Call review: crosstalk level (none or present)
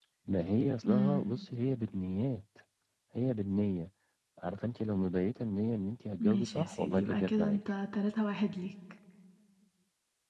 present